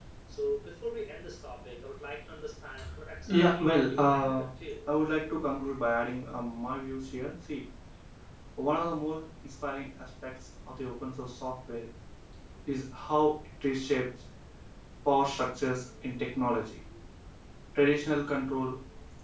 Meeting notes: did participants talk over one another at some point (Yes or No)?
Yes